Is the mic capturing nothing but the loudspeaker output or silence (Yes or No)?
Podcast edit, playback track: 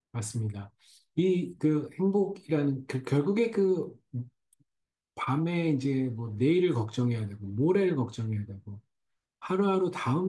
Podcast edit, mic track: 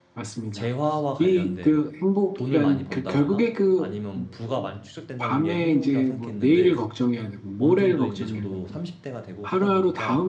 No